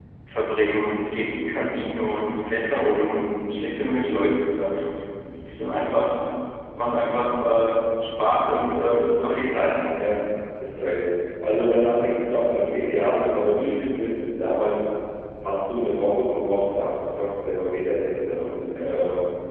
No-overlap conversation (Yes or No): Yes